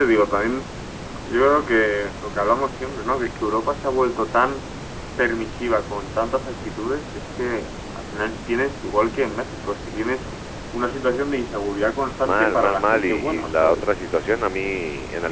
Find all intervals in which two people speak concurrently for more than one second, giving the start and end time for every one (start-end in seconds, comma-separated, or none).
12.2-13.9